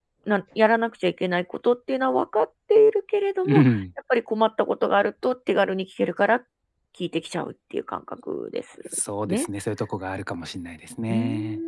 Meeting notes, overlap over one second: none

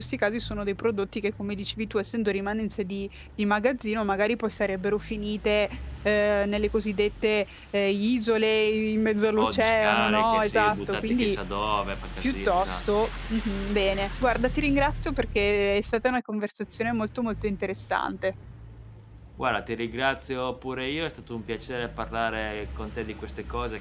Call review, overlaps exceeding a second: present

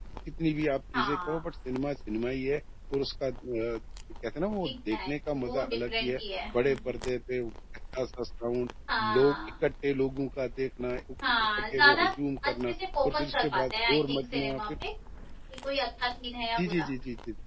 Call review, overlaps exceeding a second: present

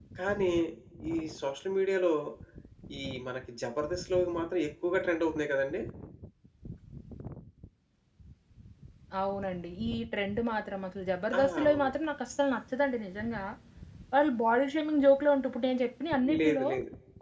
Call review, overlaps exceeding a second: none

